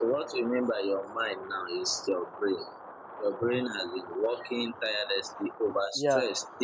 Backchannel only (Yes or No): Yes